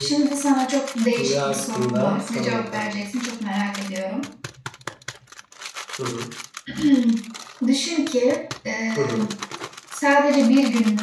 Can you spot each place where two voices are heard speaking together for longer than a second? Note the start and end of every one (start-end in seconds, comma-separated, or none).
1.2-3.0